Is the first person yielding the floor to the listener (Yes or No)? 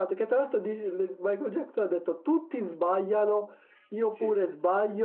No